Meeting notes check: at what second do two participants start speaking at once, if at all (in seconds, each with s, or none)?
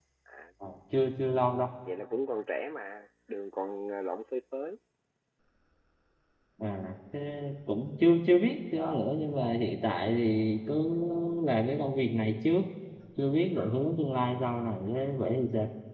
none